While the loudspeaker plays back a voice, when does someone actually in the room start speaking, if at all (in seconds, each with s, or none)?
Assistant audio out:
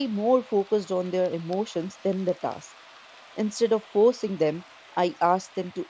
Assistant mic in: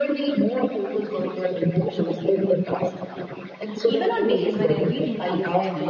3.8 s